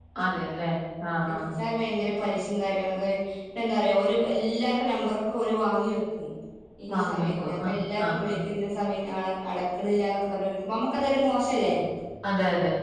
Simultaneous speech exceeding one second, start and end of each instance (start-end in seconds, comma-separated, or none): 6.9-8.4